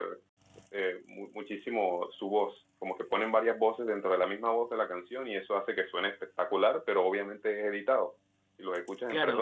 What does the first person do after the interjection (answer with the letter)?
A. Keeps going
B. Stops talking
B